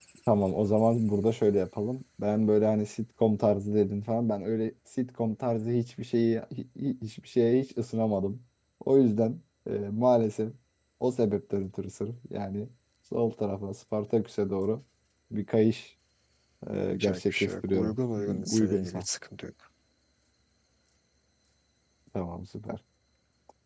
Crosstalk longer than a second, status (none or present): present